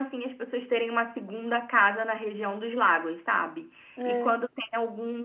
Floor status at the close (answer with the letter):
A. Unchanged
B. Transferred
A